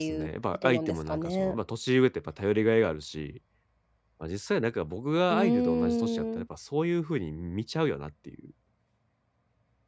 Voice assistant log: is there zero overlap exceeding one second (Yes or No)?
No